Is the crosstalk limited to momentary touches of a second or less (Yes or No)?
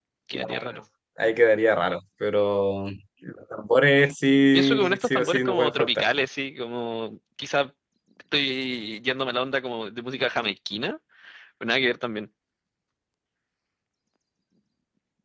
No